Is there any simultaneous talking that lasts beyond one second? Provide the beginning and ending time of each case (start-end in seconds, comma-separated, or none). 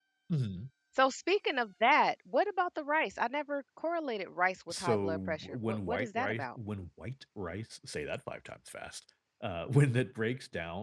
4.7-6.4